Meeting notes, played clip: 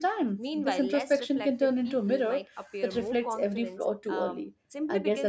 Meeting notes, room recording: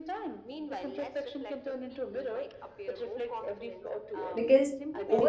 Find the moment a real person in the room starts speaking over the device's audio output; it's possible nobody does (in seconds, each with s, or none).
4.3 s